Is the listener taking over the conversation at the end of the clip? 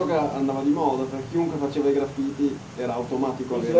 Yes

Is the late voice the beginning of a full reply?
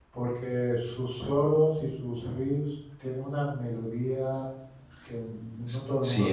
Yes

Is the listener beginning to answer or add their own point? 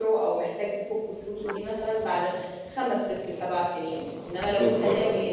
No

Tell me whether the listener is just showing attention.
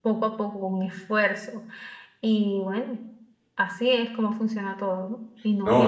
No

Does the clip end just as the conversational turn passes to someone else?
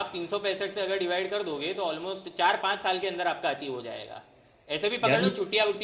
No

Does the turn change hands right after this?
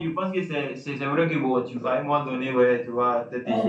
No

